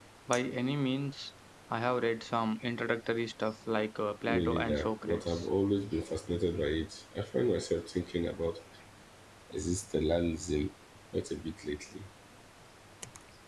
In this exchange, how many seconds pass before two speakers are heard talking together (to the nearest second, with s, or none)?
4 s